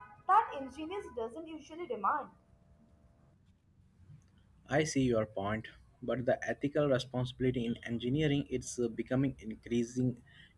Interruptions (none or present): none